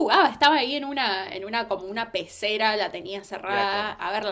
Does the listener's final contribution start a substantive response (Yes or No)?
No